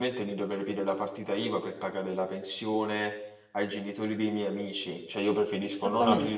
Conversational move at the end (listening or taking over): listening